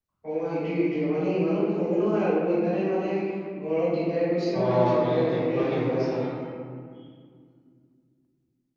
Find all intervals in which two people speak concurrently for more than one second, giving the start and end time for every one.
4.6-6.2

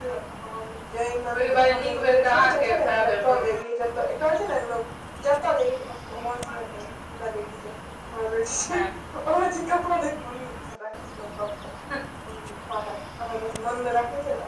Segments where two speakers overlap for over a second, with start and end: 1.3-3.4

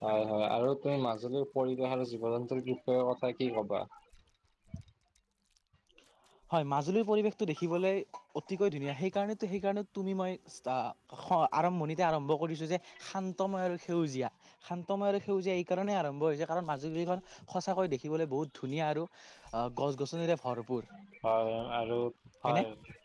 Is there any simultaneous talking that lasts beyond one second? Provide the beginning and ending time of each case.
none

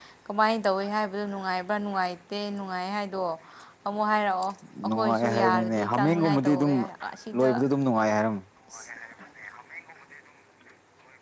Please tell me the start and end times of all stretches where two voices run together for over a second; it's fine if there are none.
4.9-6.7

